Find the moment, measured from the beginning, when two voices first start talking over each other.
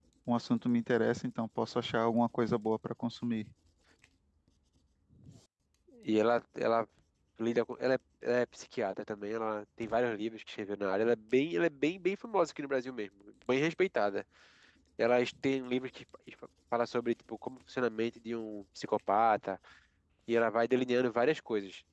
none

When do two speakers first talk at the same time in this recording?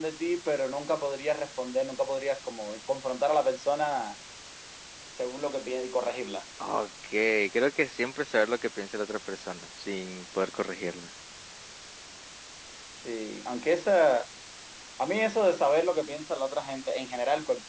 none

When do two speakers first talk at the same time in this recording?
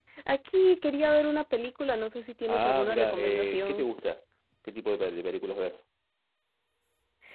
2.5 s

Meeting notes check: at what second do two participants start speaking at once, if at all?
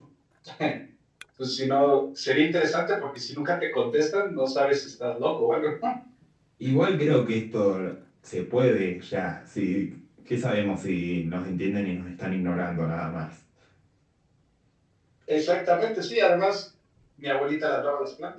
none

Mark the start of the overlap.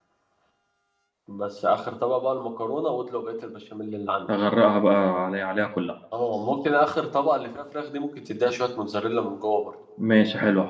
none

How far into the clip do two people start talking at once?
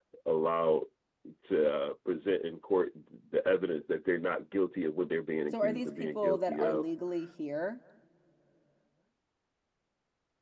5.5 s

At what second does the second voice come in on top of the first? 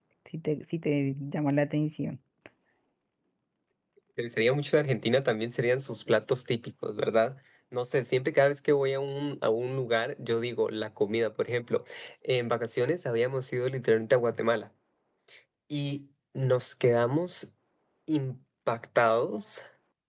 none

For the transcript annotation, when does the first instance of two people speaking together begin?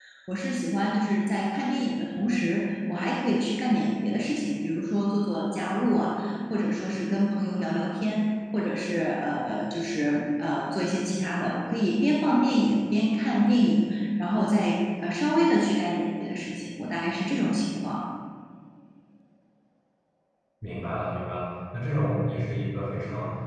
none

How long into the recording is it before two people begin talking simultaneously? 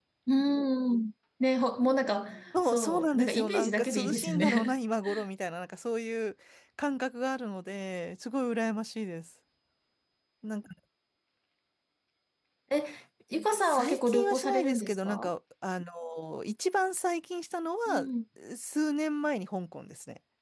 2.6 s

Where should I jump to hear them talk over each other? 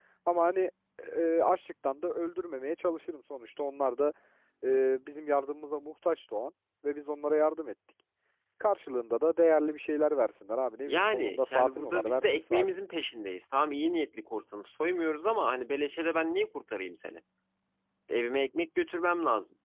10.8 s

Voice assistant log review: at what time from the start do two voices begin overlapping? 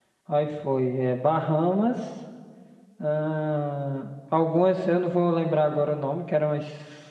none

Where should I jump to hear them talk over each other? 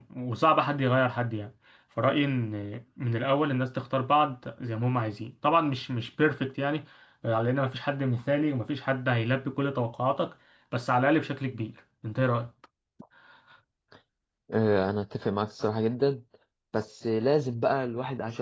none

